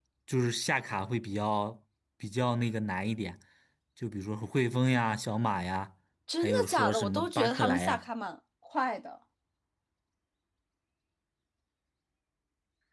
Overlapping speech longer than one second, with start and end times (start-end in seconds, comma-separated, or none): 6.4-8.0